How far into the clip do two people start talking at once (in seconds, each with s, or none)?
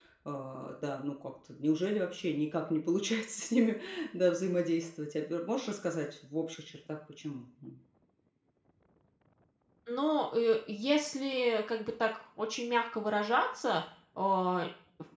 none